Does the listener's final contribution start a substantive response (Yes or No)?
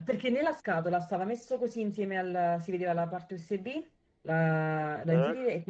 No